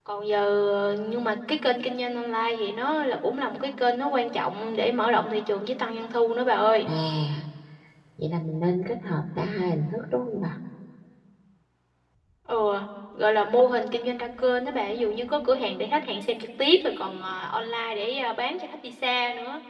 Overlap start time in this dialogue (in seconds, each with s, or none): none